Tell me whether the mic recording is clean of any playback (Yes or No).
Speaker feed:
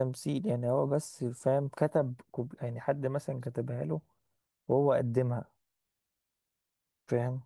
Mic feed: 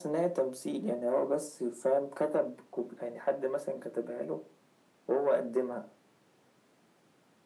No